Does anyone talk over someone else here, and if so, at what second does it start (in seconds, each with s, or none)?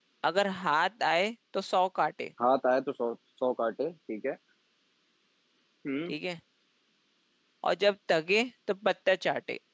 none